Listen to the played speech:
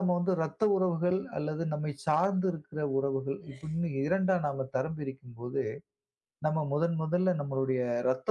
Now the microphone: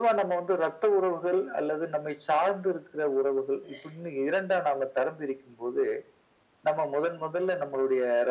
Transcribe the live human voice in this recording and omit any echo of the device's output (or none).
none